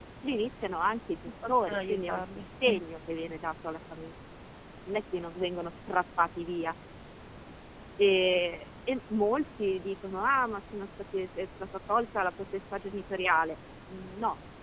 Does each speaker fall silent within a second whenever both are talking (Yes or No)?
No